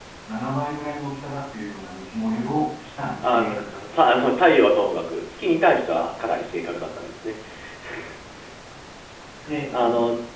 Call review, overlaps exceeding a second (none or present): none